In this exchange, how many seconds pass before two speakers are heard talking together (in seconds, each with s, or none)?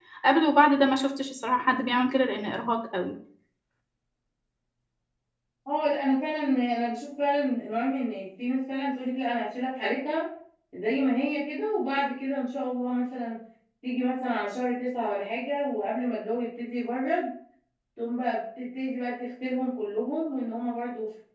none